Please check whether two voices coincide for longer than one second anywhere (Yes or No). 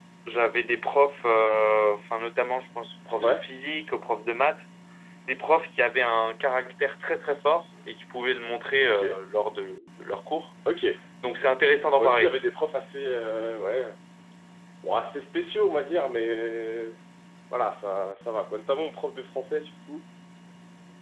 No